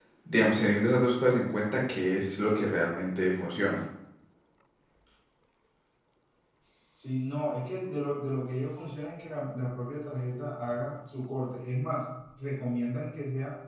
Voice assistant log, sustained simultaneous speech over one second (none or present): none